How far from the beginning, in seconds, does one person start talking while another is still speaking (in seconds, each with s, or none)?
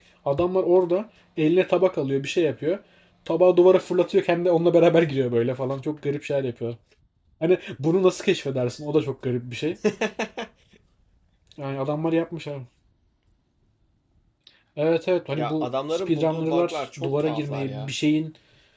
15.4 s